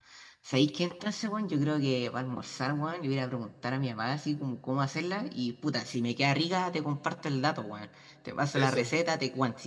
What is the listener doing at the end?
listening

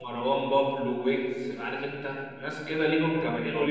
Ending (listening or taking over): listening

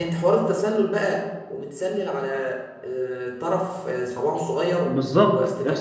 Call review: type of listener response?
taking over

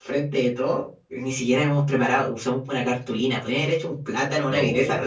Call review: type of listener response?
listening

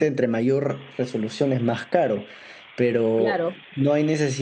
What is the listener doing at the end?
listening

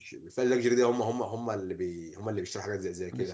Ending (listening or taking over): taking over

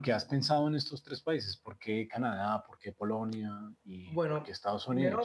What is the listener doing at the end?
taking over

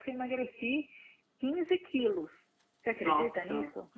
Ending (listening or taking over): taking over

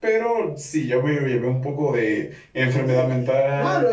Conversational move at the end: taking over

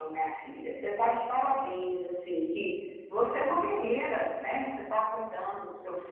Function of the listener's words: listening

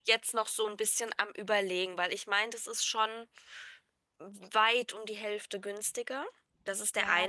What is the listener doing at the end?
taking over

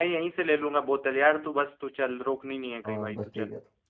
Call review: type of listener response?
taking over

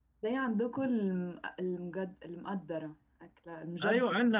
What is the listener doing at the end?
taking over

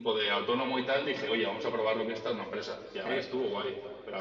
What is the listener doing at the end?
listening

